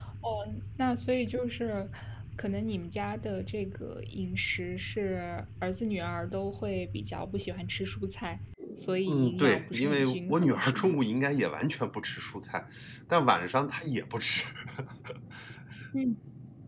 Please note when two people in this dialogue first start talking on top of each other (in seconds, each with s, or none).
9.1 s